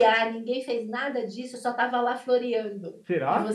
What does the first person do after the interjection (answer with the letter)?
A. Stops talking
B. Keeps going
B